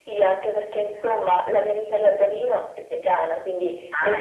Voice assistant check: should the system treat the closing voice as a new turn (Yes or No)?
No